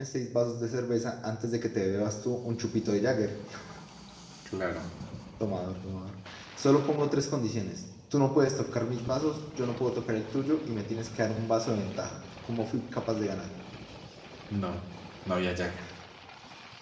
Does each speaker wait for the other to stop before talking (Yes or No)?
Yes